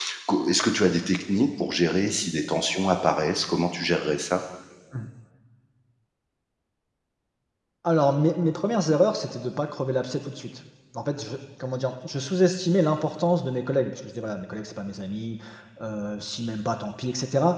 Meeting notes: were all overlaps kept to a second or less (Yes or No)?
Yes